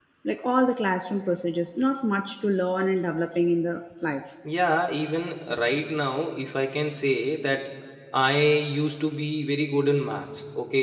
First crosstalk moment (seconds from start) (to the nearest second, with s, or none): none